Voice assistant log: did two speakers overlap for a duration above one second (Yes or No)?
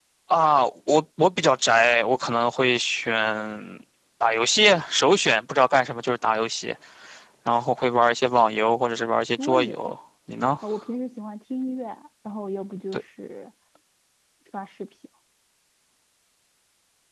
No